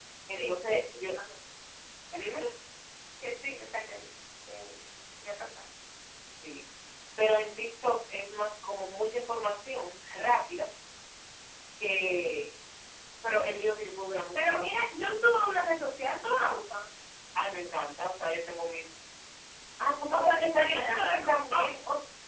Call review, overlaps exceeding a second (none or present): present